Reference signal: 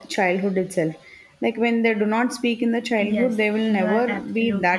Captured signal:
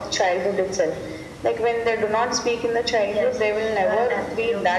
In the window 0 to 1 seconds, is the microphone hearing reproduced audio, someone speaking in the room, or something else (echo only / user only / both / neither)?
echo only